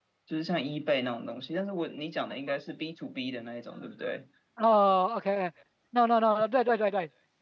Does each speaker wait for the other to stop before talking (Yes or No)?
Yes